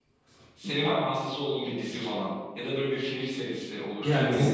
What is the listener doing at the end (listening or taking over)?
taking over